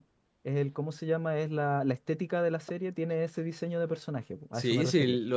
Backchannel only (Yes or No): No